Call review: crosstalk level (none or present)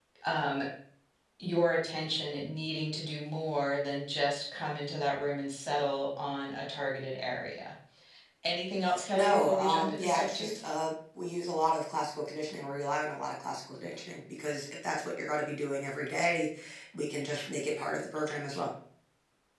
present